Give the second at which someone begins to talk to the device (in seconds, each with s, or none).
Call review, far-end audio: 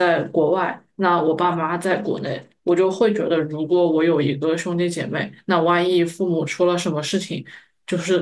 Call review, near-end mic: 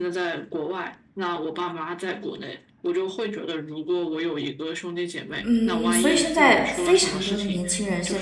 5.4 s